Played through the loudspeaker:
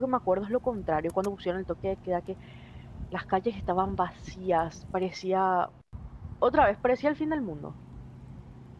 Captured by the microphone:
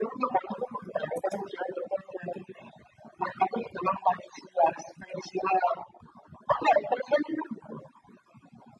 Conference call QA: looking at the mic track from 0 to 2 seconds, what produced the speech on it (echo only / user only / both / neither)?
echo only